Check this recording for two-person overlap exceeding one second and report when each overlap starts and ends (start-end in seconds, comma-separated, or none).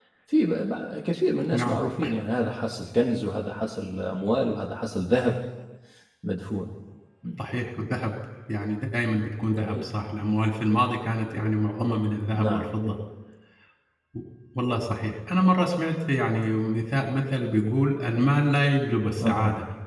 none